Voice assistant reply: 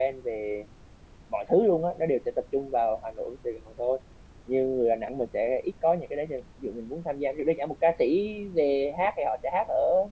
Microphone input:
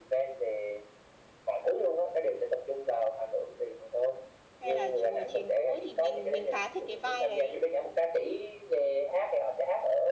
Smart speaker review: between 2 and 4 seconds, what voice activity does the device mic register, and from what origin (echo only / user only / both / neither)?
echo only